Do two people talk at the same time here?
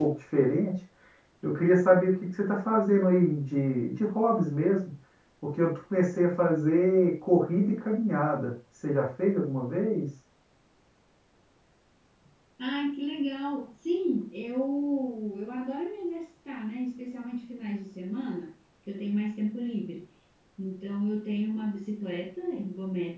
No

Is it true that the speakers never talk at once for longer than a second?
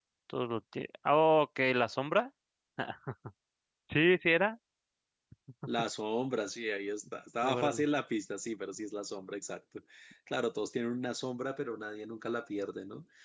Yes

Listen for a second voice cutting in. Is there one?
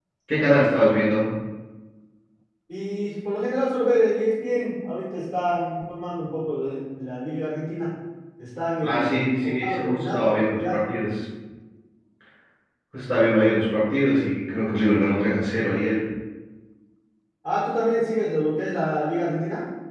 Yes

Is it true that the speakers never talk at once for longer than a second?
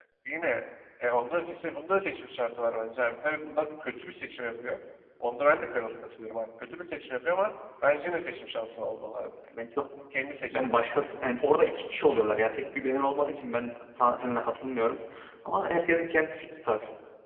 Yes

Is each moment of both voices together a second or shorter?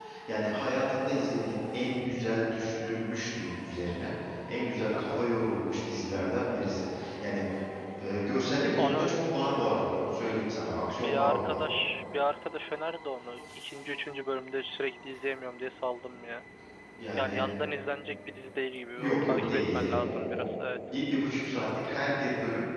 No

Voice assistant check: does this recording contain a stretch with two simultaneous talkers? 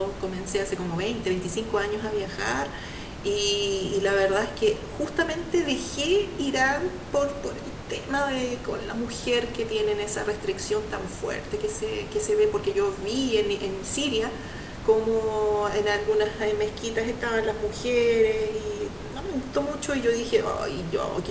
No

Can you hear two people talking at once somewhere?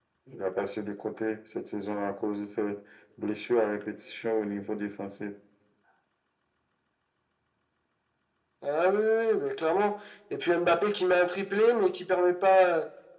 No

